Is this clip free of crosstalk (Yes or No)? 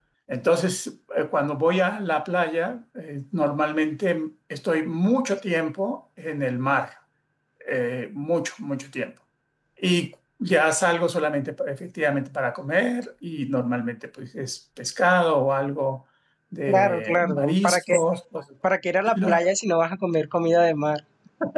No